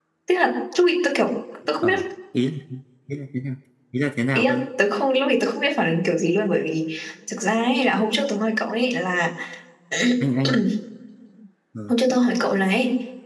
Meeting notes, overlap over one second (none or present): none